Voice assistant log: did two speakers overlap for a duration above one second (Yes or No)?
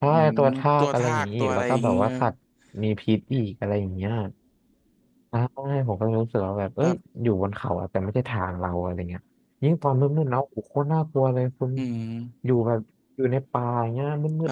Yes